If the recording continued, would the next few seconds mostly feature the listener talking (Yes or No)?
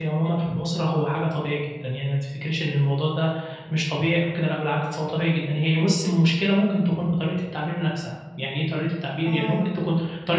No